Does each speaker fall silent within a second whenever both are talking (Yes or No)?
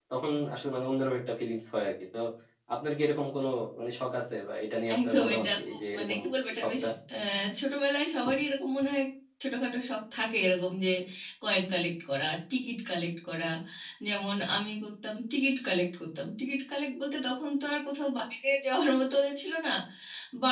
No